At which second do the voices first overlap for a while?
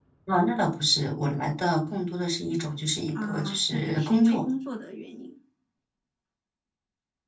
3.2 s

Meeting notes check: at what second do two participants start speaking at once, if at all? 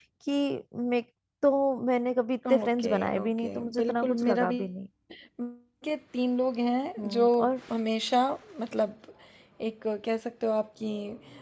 2.6 s

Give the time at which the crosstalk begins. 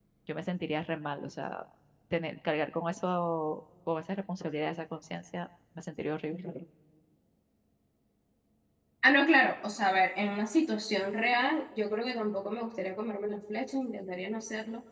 none

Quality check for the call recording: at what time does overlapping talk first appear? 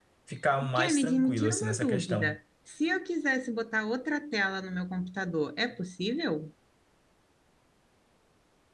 0.8 s

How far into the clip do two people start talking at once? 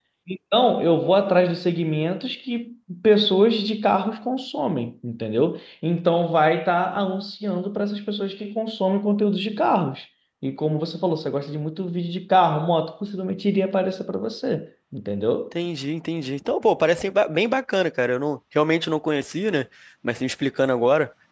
none

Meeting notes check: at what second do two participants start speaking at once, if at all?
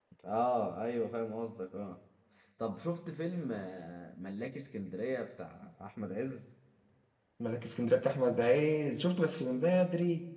none

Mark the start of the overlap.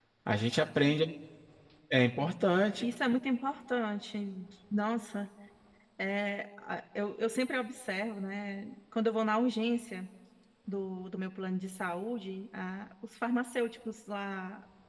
none

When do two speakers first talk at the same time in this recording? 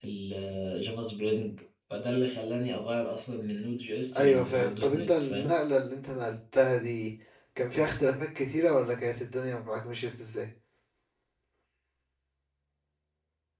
4.1 s

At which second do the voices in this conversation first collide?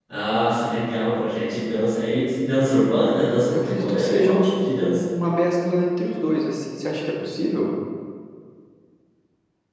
3.5 s

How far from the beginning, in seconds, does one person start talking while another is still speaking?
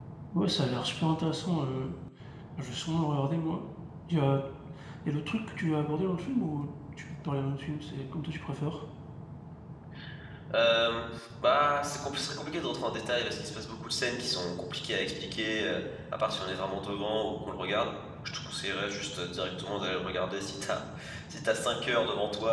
none

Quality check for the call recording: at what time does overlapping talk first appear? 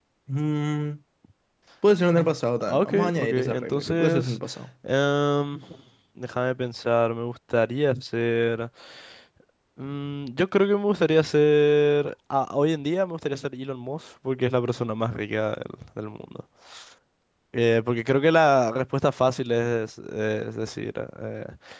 2.7 s

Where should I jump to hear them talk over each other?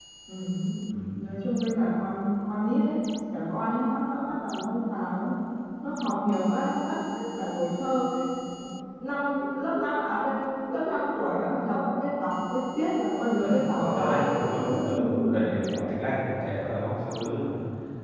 13.4 s

